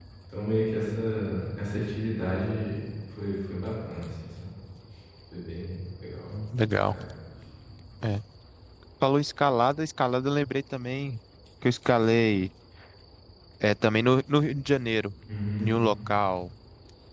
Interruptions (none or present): none